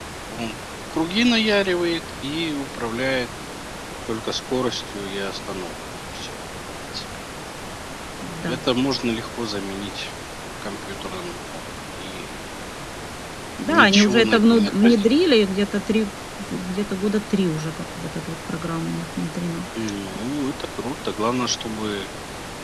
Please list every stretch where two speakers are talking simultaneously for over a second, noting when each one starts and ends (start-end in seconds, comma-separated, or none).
13.6-15.1